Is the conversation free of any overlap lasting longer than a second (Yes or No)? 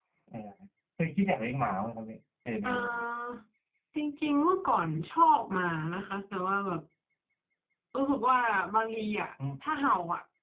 Yes